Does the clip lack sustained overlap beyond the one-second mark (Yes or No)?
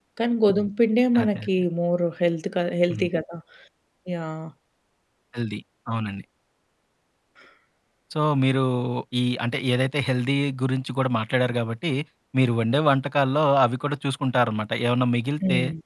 Yes